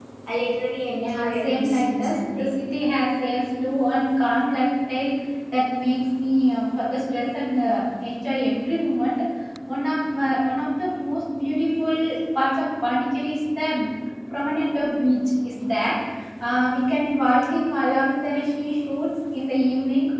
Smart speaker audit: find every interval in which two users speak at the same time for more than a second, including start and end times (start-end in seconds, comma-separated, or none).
1.0-2.5